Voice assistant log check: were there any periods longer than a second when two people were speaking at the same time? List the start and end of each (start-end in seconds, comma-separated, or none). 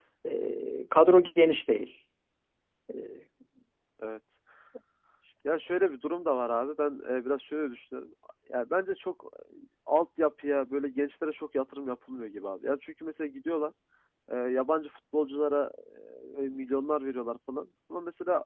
none